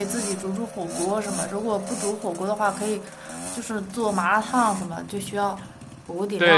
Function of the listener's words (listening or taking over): taking over